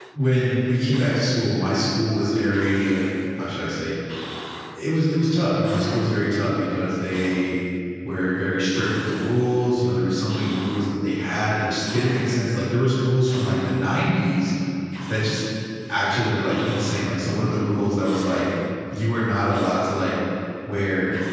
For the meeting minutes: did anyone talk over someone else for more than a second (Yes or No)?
No